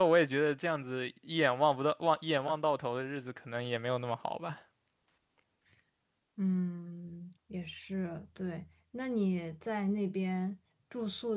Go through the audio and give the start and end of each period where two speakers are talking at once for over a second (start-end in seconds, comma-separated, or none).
none